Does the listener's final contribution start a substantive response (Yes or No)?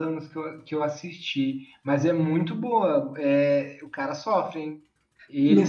Yes